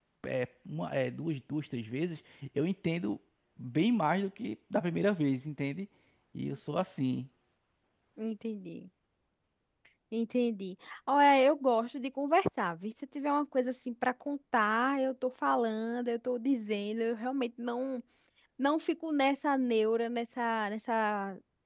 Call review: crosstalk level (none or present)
none